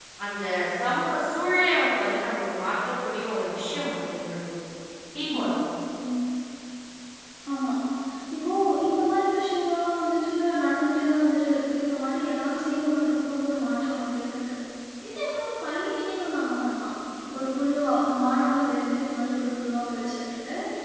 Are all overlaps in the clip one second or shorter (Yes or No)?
Yes